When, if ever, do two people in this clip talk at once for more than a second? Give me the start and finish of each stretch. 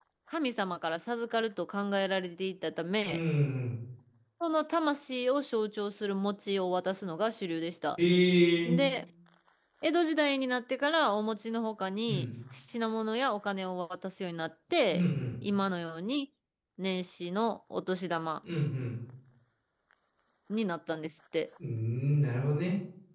none

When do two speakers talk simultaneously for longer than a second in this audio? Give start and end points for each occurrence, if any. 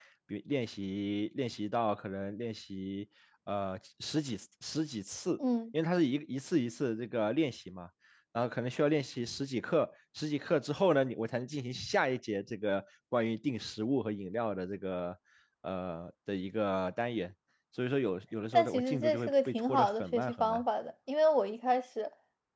18.5-20.6

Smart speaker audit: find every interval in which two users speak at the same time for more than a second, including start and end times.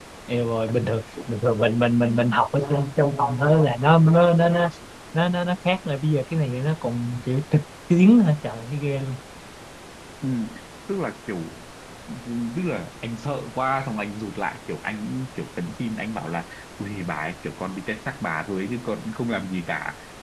none

